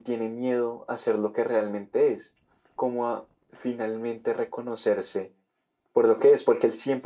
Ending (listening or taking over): listening